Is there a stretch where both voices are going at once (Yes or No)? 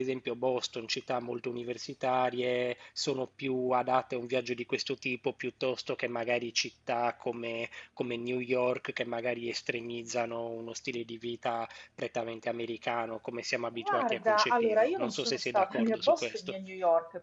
Yes